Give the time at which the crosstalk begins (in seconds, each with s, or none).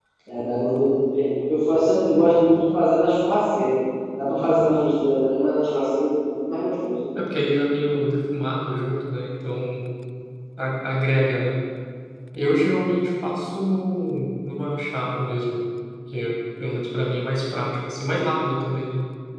none